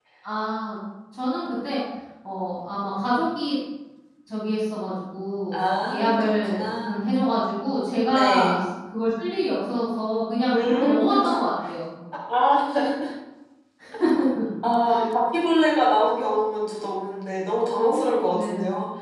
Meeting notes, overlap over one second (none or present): present